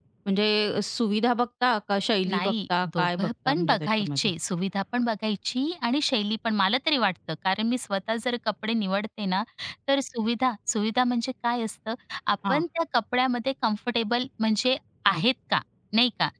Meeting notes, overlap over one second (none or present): present